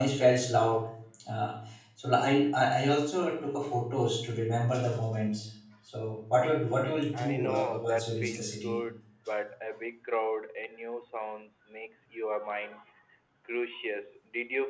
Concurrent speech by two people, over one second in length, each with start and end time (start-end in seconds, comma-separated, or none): 7.1-8.8